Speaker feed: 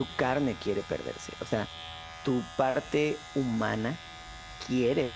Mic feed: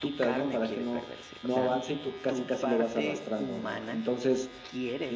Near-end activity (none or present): present